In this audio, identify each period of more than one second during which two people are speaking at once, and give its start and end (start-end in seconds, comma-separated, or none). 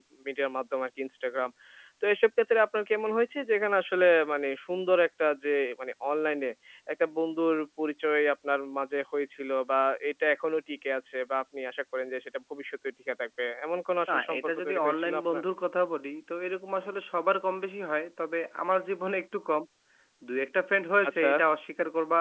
14.1-15.4